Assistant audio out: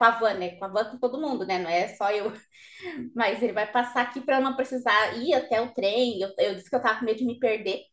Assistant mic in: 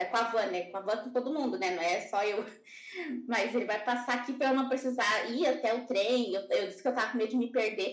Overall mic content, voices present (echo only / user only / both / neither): echo only